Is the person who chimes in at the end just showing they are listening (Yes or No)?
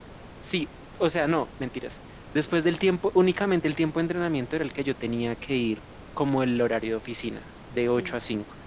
Yes